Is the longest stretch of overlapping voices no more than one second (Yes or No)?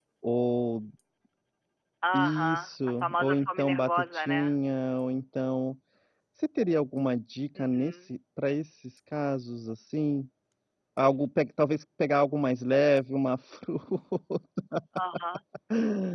No